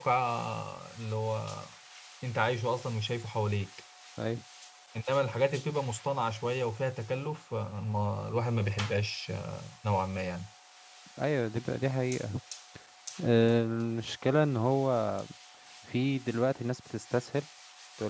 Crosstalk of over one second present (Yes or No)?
No